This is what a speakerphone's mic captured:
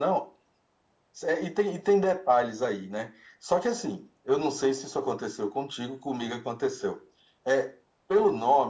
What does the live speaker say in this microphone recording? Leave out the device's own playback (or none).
none